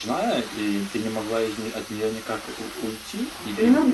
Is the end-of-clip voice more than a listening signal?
Yes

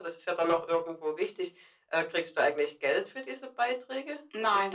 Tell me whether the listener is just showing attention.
No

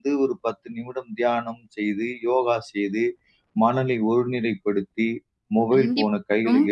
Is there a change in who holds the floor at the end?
Yes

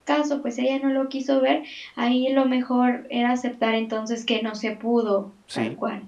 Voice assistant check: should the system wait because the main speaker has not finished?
No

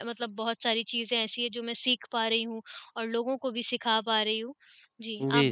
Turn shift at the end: Yes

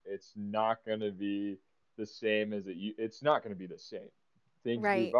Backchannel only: No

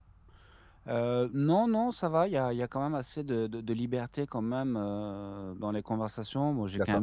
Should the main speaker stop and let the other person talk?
No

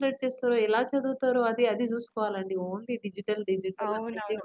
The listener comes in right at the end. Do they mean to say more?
Yes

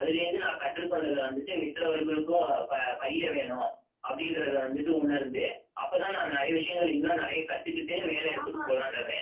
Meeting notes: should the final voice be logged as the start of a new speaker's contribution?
Yes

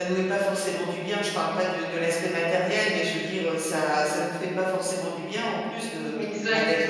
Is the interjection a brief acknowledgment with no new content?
Yes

